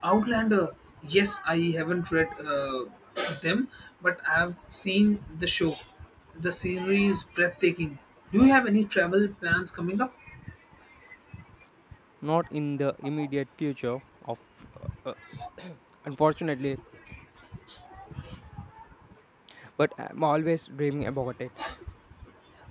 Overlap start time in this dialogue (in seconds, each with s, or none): none